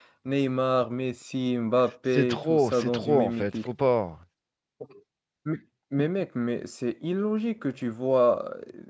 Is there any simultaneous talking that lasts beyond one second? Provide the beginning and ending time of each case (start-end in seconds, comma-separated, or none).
2.1-3.7